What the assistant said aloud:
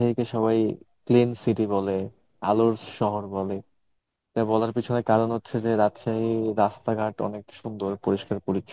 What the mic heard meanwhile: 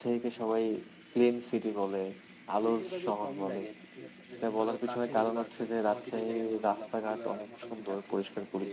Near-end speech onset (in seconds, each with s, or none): 2.7 s